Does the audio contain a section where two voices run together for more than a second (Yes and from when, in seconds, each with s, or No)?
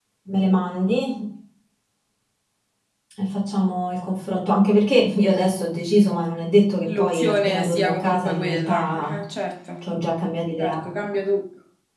Yes, from 6.9 s